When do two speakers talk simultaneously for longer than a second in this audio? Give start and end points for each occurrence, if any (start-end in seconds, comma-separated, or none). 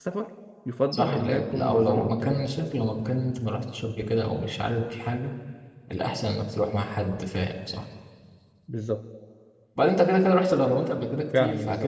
0.9-2.5